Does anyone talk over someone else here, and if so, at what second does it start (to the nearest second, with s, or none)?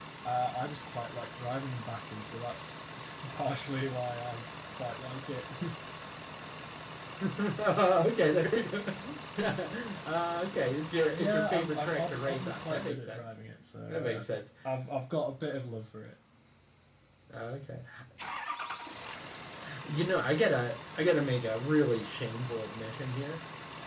11 s